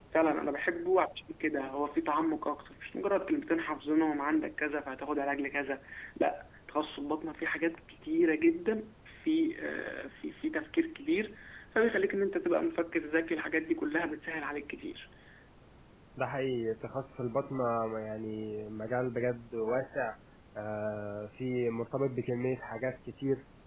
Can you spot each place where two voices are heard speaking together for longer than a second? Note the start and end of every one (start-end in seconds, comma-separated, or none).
none